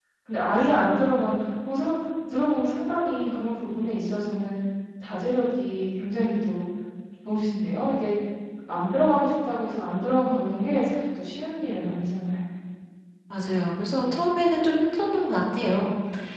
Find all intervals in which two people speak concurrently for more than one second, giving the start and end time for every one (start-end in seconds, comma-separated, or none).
none